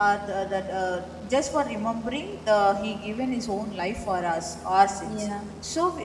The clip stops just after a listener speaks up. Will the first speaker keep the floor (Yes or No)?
Yes